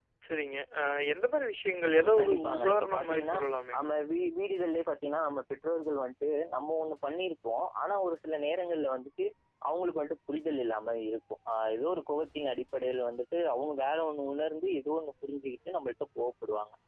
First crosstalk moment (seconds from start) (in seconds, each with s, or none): 1.9 s